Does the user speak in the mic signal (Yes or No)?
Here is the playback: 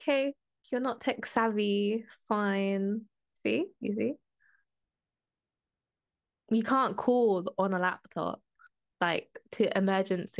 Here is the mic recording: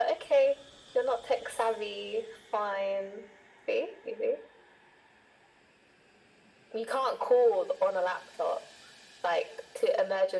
No